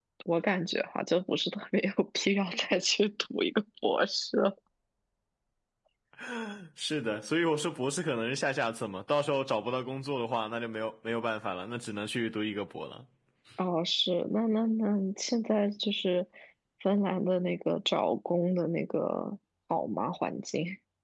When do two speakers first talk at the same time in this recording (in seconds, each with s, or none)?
none